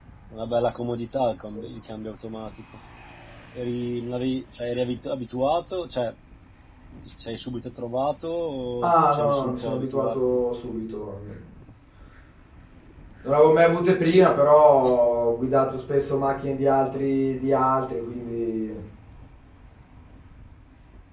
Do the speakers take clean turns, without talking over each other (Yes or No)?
No